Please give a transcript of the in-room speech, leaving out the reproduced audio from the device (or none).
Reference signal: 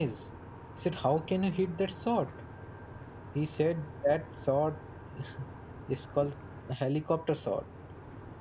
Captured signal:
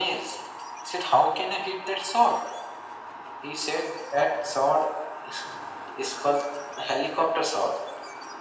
none